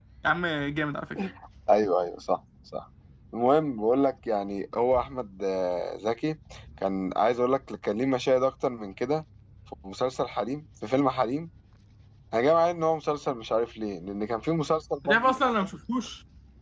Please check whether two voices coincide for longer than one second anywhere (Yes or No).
No